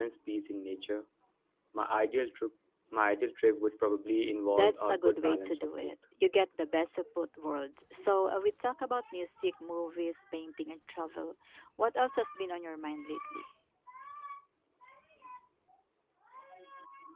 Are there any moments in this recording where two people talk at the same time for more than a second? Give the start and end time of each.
4.5-5.9

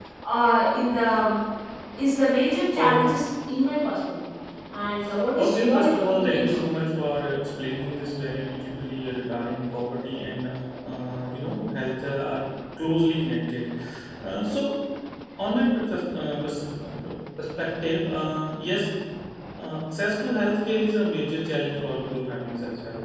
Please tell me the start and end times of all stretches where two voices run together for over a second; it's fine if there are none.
5.4-6.8

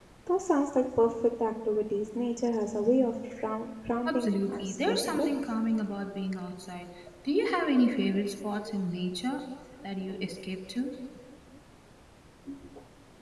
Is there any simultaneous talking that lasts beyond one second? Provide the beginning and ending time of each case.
4.0-5.3

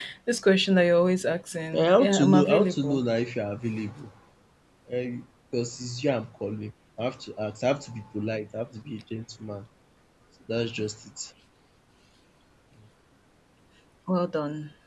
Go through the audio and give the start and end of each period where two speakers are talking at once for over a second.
1.7-3.0

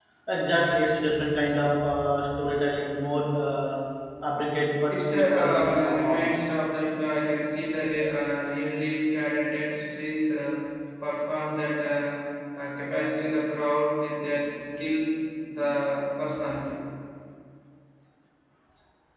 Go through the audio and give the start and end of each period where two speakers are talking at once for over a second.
4.9-6.3

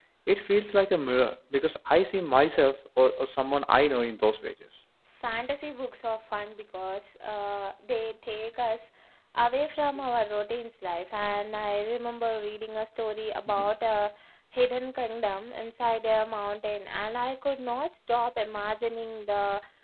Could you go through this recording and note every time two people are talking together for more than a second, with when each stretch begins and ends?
none

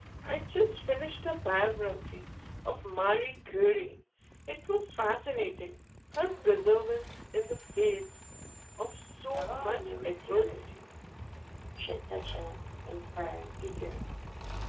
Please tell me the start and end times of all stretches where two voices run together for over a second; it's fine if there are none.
9.3-10.7

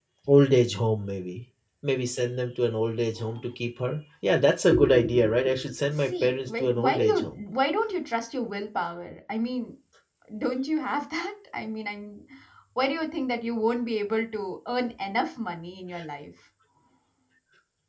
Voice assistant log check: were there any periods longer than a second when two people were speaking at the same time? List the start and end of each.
6.0-7.2

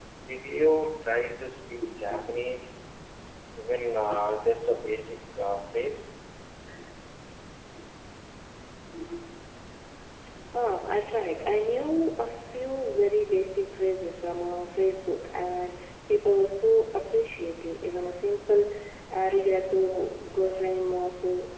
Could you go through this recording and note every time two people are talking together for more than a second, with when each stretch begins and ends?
none

